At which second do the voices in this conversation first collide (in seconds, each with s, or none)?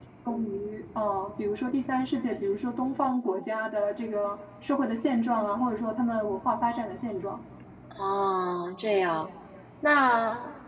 none